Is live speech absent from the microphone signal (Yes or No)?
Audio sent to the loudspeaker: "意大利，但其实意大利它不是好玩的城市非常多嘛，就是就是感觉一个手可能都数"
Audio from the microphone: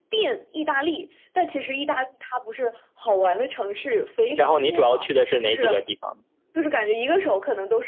No